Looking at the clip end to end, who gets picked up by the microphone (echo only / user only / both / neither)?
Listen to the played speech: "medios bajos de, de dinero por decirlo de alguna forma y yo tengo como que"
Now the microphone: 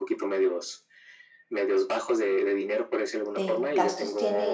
both